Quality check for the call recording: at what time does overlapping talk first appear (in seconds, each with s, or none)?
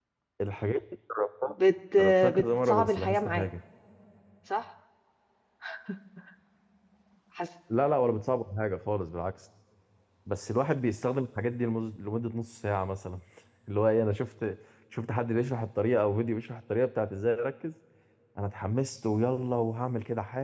2.0 s